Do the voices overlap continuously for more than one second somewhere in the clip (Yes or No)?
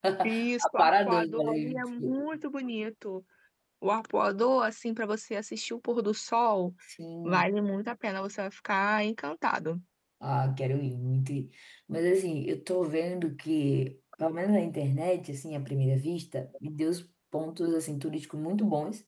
Yes